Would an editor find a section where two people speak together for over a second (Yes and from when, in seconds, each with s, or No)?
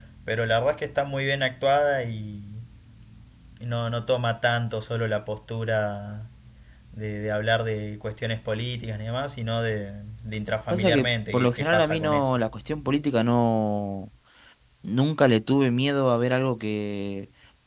Yes, from 10.7 s